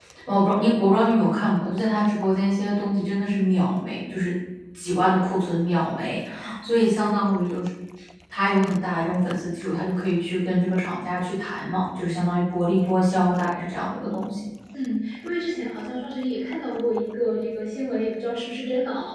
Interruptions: none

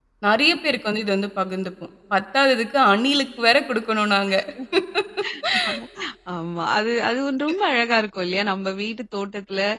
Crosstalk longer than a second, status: none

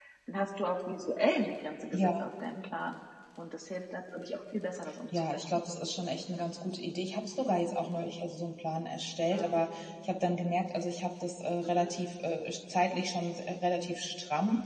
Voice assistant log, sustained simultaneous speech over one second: none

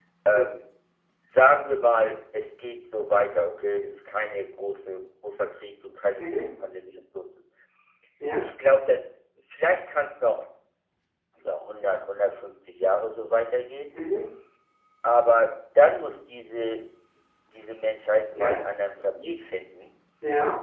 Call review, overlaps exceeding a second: none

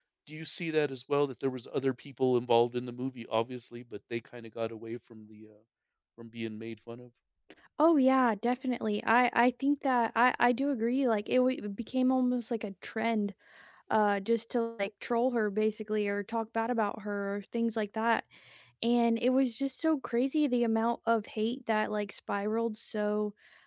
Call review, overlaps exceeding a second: none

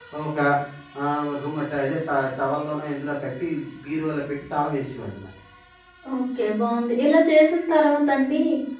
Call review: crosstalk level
none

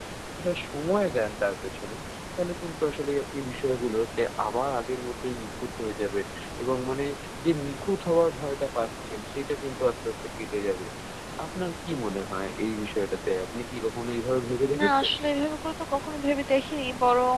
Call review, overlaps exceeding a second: none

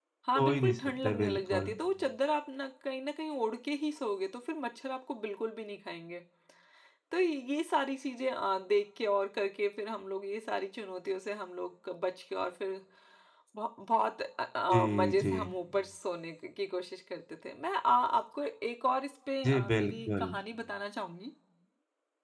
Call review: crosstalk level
present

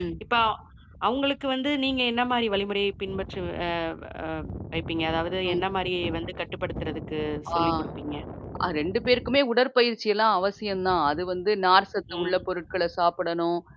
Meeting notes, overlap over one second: none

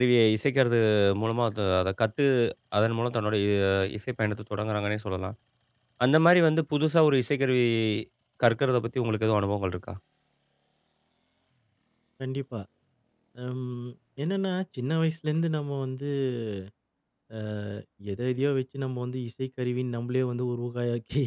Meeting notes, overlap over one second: none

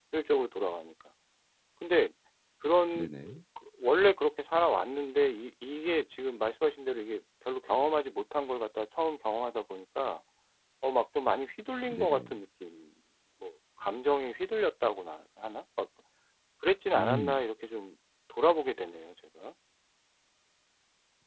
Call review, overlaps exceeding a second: none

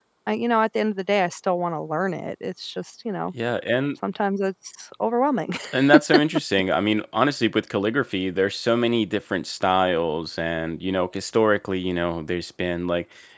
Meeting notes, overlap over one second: none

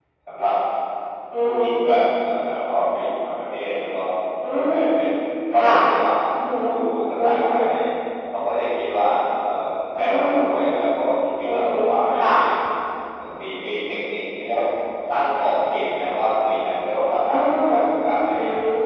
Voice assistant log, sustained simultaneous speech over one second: none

